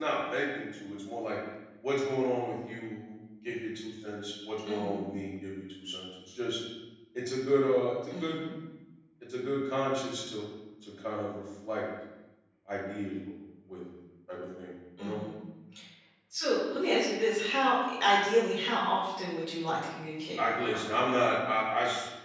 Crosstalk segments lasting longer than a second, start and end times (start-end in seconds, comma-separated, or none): none